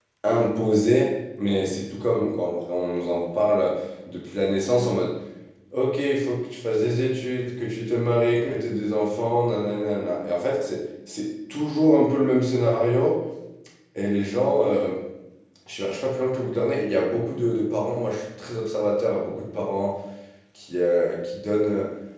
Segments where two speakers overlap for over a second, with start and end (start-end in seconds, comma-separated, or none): none